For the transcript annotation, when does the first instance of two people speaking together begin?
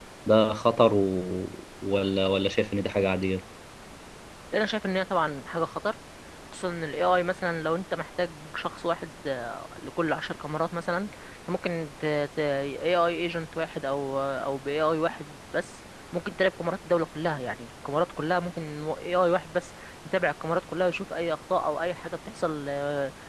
none

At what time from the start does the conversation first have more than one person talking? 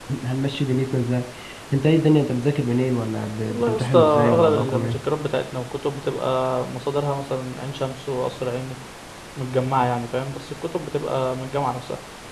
3.5 s

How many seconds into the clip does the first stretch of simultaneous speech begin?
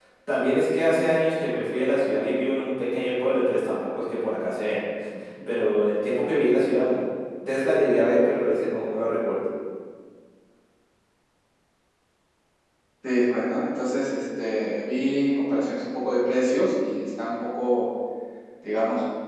none

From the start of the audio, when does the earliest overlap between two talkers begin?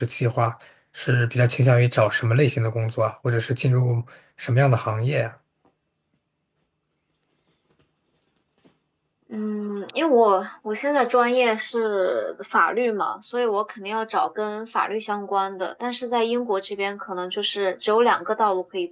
none

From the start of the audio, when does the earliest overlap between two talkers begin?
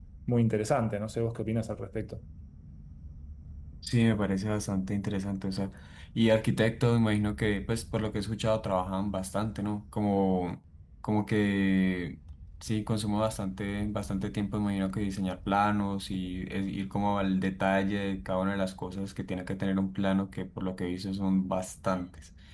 none

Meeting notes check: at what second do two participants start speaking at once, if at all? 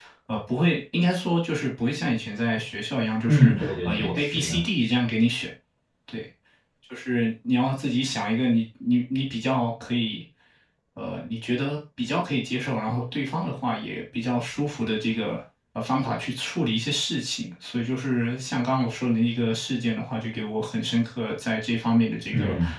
3.3 s

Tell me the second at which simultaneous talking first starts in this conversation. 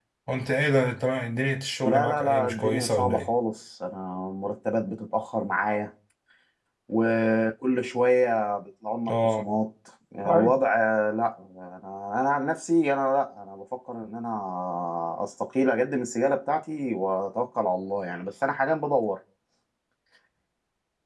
1.8 s

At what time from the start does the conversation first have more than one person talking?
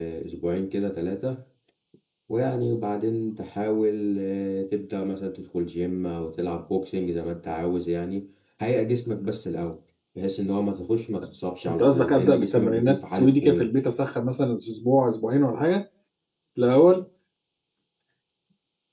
11.7 s

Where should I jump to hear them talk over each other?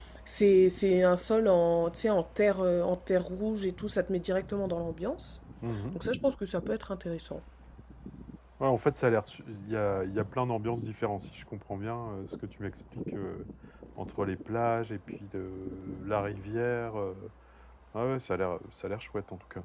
none

